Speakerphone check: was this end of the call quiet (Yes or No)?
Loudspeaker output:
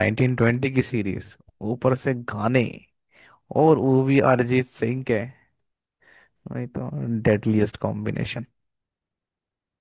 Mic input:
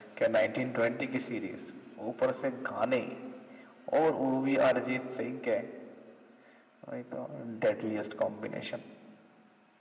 Yes